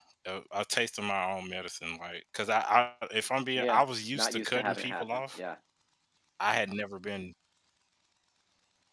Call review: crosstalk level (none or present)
present